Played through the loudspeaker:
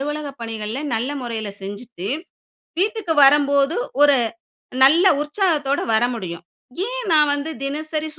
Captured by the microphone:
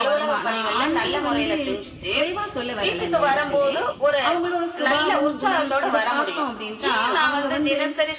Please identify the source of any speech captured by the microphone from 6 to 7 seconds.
both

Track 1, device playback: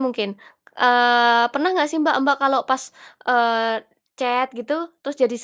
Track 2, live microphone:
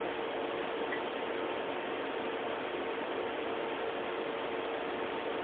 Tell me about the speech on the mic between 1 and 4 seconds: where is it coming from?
neither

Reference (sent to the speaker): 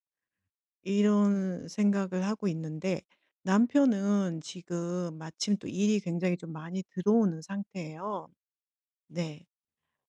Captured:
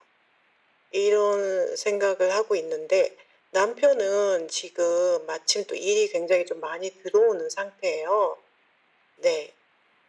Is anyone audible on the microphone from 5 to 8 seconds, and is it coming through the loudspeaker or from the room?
echo only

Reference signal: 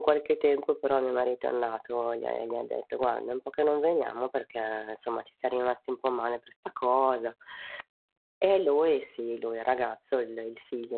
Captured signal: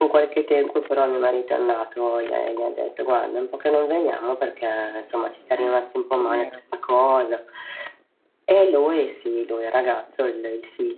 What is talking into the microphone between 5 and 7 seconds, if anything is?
both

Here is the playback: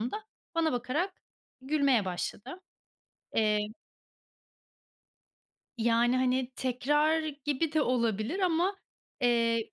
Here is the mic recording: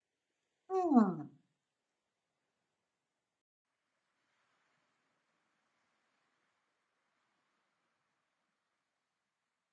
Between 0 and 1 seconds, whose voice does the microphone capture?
user only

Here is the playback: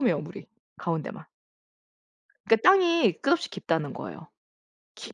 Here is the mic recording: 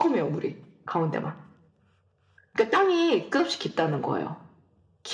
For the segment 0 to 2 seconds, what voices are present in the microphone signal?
echo only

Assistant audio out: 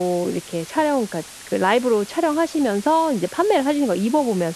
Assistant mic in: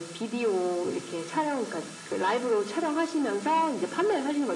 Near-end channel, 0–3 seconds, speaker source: echo only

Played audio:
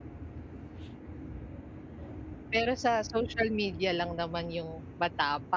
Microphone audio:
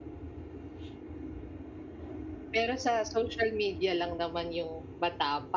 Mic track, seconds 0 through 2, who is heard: neither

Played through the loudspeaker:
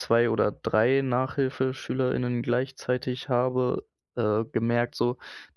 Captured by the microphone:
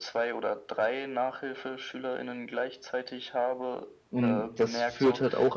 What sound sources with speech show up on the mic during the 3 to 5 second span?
both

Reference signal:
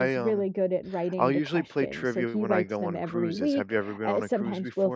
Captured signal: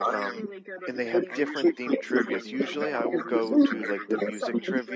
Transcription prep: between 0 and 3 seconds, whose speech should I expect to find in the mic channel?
both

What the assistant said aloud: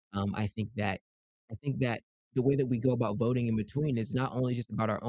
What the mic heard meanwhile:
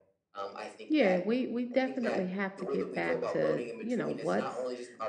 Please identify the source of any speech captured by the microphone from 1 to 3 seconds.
both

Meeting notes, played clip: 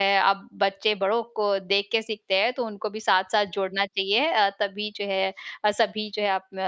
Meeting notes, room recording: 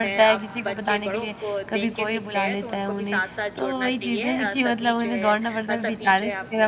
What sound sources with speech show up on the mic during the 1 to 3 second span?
both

